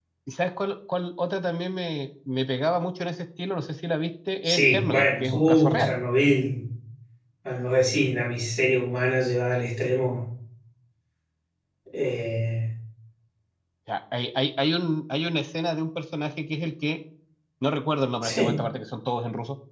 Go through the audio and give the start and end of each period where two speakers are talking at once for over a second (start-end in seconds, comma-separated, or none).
4.4-5.9